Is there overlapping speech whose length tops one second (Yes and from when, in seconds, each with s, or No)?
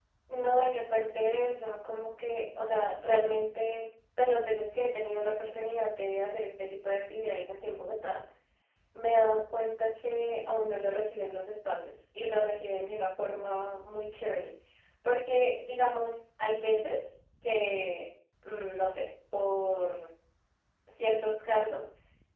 No